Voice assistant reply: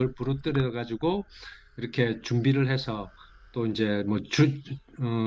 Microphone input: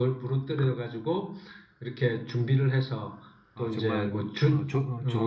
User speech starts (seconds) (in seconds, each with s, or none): 3.5 s